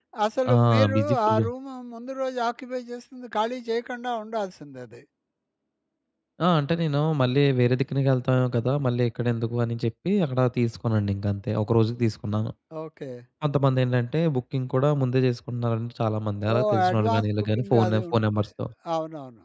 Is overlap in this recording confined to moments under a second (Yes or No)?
No